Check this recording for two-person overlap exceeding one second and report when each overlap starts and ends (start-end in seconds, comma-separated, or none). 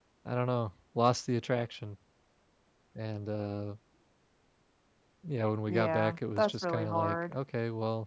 5.7-7.3